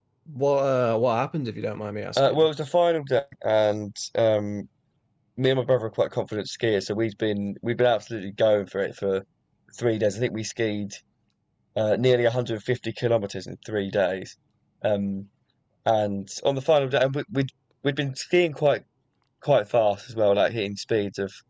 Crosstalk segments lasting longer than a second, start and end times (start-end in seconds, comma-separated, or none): none